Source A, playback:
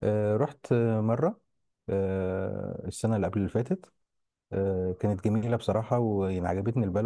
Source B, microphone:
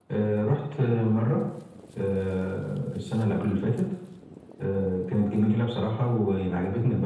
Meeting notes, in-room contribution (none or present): none